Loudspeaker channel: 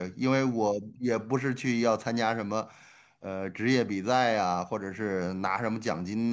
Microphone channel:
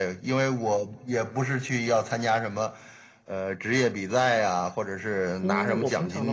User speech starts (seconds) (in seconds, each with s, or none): 5.4 s